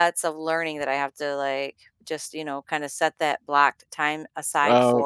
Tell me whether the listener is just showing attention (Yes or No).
No